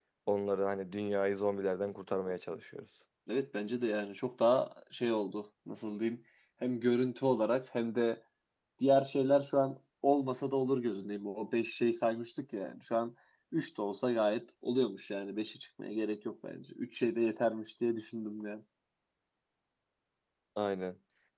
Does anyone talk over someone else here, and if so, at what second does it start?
none

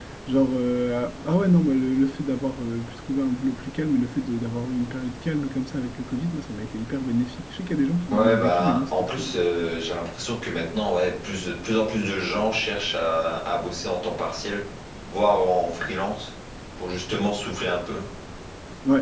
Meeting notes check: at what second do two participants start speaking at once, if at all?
8.1 s

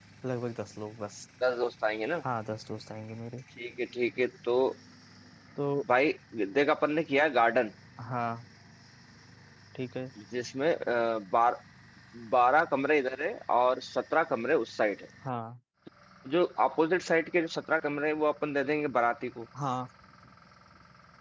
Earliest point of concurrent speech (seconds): none

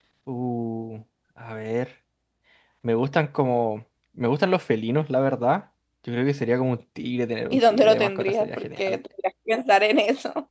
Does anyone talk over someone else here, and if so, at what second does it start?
7.5 s

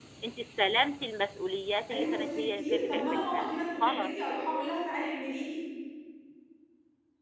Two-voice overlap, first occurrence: 1.9 s

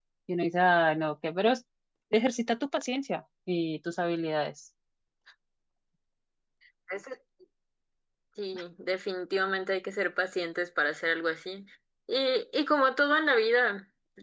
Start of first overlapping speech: none

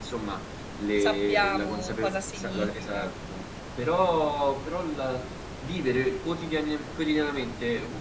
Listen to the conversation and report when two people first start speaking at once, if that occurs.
1.0 s

